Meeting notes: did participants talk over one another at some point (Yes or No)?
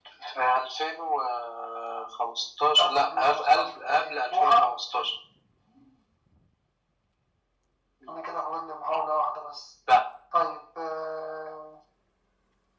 Yes